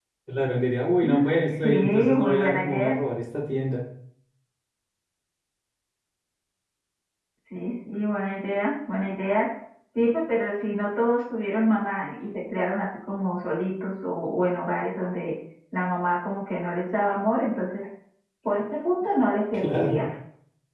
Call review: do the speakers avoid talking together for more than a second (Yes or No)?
No